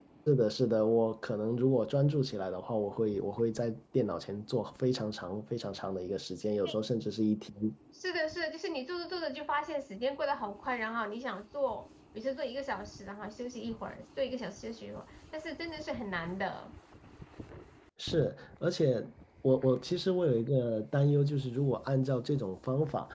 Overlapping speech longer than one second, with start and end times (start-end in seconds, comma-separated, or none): none